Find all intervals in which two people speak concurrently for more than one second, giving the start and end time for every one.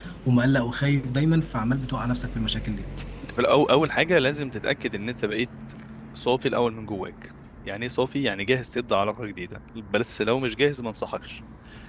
none

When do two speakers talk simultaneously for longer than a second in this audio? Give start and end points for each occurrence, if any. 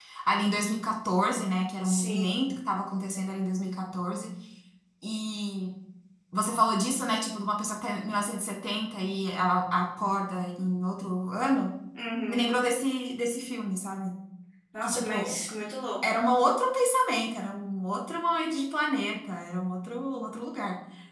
none

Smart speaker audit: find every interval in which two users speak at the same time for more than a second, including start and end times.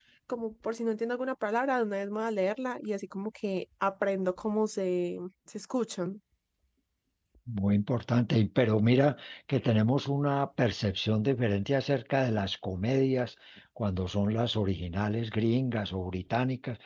none

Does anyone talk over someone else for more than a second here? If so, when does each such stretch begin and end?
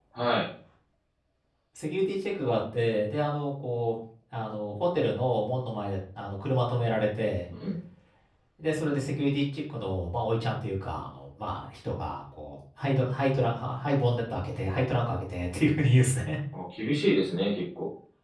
none

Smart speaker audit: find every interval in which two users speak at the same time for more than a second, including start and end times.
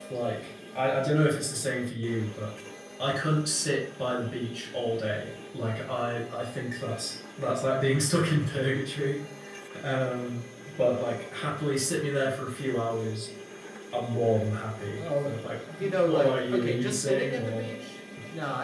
15.8-17.7

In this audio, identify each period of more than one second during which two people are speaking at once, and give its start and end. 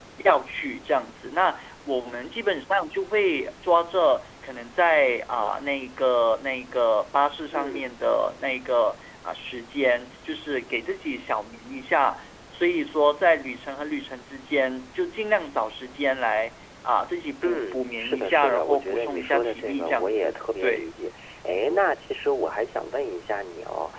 17.4-20.9

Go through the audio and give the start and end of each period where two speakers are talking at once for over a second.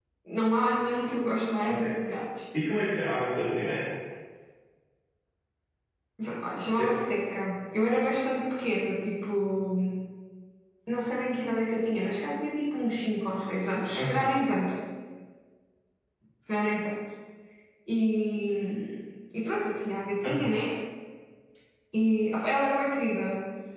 none

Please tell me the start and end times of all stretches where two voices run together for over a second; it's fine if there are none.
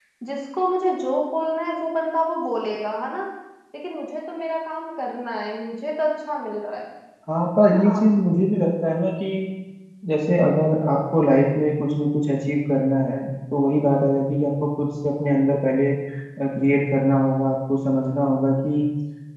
none

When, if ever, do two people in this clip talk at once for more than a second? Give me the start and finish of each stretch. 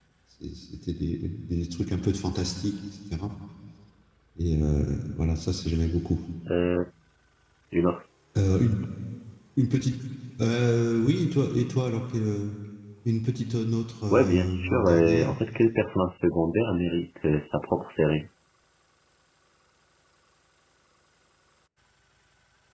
14.1-15.4

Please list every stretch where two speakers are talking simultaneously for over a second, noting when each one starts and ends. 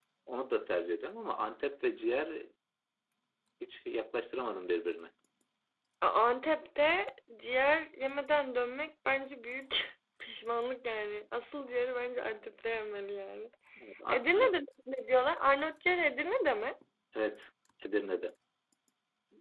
none

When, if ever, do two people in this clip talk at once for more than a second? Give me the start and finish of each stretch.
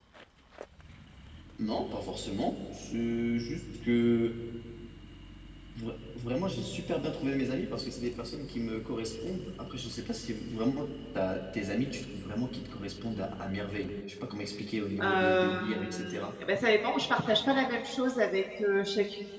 15.0-16.3

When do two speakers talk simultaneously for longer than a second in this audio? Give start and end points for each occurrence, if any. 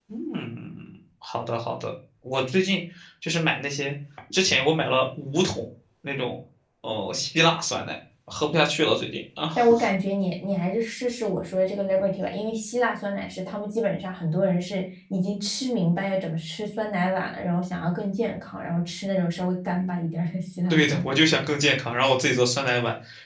none

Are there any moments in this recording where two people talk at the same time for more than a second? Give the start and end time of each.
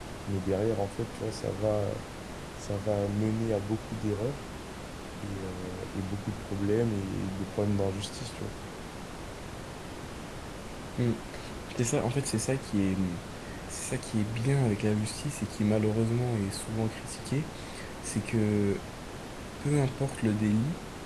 none

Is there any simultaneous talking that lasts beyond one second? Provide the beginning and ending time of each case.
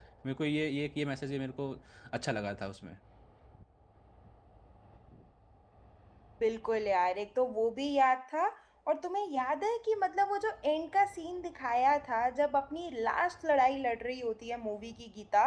none

